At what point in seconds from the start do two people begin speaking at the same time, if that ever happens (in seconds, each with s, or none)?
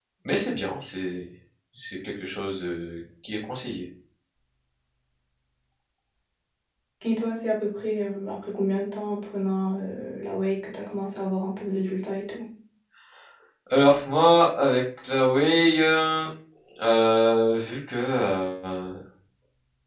none